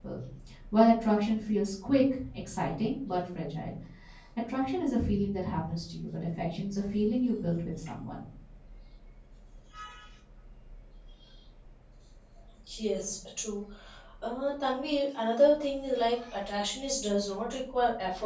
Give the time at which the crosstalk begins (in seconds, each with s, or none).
none